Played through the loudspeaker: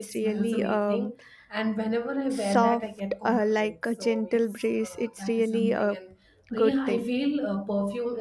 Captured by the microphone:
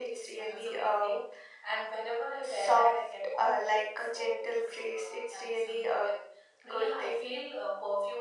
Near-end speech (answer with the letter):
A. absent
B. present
A